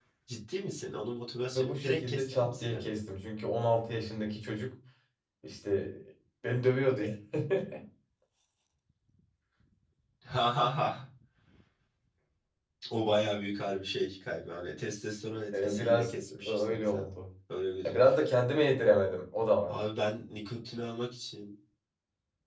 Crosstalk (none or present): present